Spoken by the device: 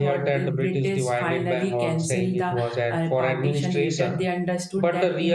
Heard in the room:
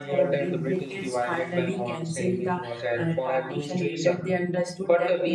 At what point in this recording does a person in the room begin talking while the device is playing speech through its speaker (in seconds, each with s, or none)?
none